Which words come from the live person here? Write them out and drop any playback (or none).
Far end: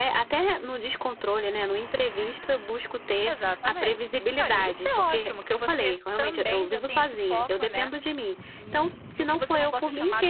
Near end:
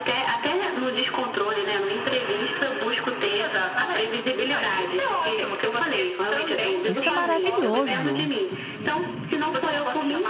Isso é maravilhoso.